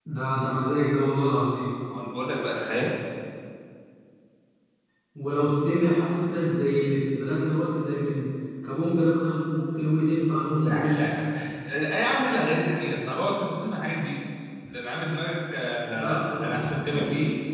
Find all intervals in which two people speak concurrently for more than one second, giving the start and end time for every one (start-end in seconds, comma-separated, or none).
none